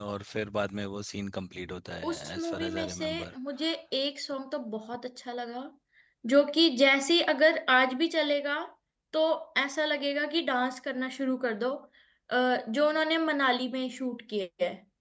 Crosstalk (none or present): present